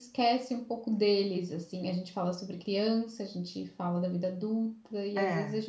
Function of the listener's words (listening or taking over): listening